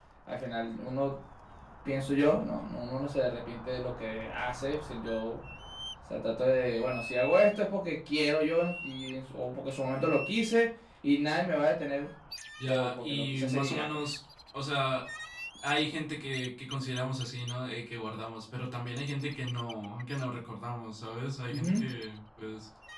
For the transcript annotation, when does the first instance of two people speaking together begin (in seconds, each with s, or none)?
12.7 s